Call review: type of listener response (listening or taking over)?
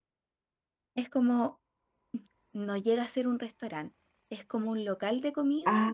taking over